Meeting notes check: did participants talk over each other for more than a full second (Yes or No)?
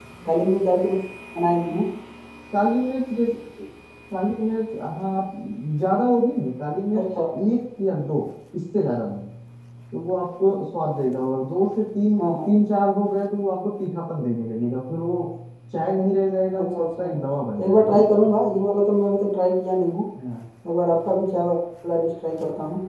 No